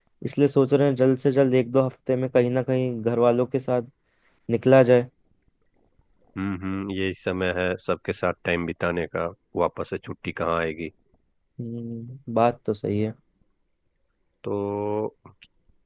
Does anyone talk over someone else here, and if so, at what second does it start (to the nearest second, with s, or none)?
none